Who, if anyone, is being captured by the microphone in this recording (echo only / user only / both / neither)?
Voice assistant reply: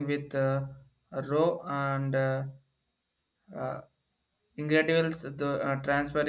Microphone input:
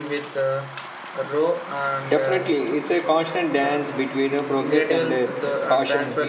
both